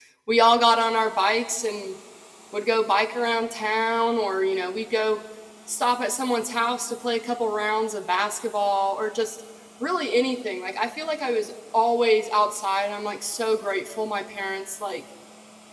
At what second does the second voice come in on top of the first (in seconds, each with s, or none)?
none